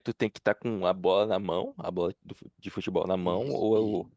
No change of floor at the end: No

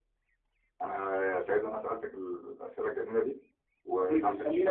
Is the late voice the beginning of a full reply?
Yes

